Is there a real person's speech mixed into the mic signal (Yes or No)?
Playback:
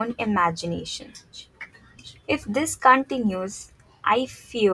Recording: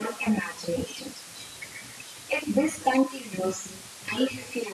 No